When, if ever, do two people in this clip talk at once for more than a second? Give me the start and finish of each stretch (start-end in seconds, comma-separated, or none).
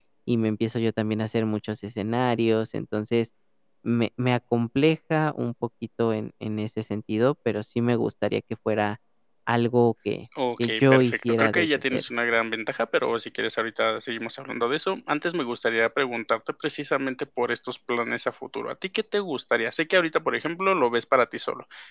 10.6-12.0